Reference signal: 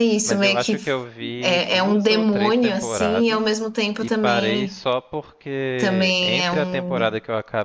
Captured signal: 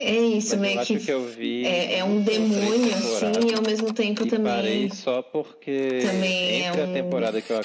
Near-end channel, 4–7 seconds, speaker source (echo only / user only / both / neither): echo only